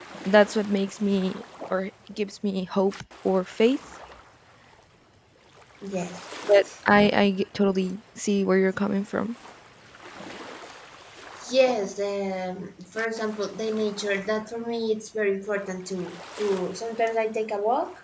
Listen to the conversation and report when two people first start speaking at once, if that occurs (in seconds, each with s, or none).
none